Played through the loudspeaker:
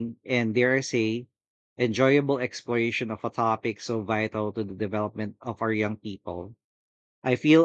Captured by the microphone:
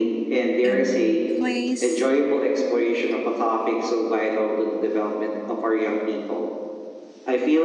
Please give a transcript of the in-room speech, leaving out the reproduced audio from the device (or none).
in place